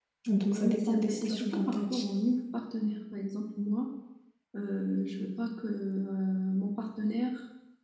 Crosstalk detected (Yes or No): Yes